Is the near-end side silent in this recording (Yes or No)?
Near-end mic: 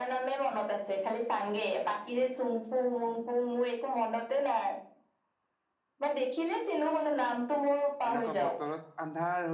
No